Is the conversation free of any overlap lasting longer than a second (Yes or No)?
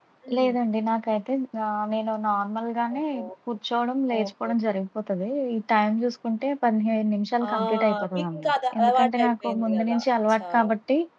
No